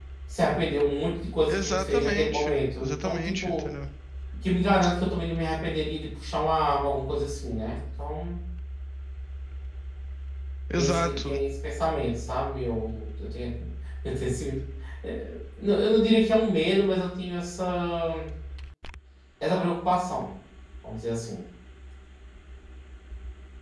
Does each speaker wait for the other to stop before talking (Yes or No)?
No